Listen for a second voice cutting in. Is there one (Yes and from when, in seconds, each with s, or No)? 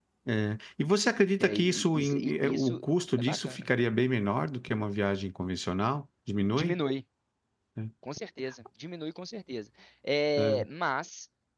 Yes, from 1.4 s